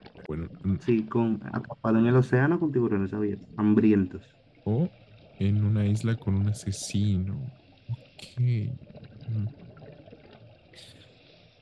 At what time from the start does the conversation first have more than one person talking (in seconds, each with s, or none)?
none